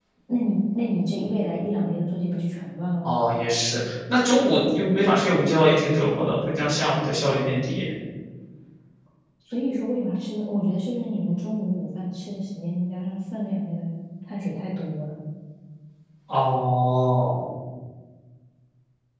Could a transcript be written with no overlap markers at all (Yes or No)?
Yes